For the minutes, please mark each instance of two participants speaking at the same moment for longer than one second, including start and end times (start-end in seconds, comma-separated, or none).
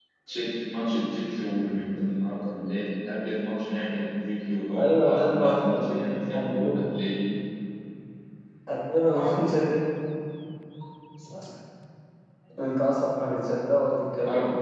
4.8-6.8